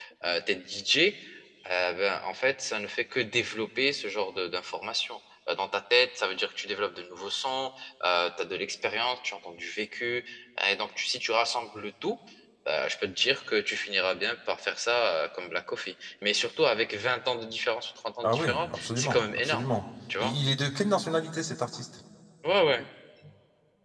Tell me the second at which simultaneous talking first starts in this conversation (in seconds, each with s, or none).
18.2 s